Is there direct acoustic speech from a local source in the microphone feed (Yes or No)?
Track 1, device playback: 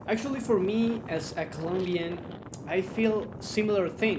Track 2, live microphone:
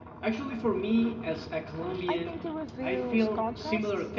Yes